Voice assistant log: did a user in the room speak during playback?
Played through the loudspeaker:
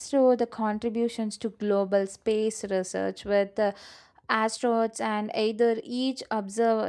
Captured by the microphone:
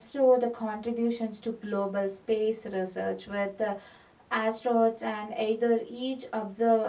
No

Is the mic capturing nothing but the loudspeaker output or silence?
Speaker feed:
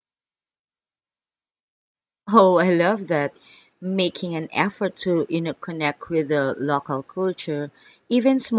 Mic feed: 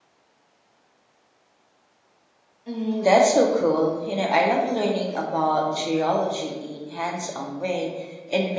No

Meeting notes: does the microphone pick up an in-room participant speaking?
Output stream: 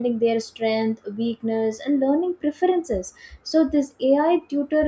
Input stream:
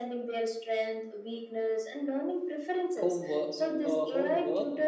Yes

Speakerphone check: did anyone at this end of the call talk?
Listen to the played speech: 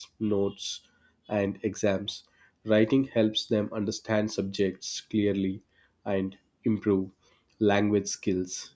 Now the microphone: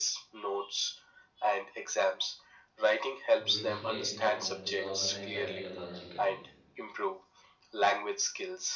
Yes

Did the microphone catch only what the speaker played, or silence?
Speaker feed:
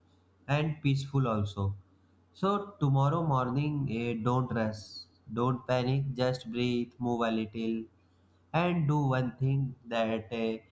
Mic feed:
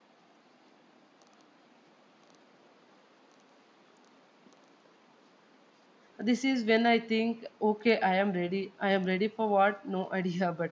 No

